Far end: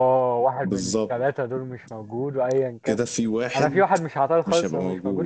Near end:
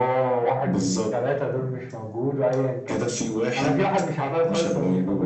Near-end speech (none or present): none